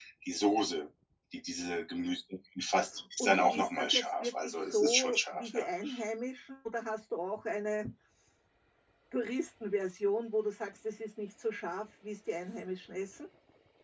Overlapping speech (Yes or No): Yes